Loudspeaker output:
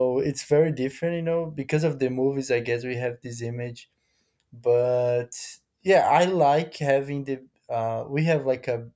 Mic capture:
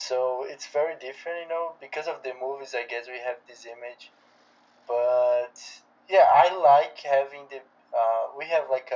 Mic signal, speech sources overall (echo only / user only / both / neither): echo only